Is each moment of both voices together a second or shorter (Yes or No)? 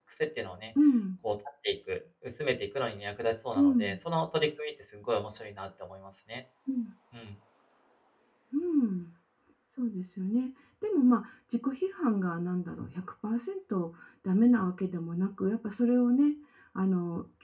Yes